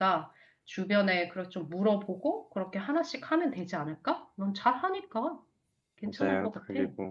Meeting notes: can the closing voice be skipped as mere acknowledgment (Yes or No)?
No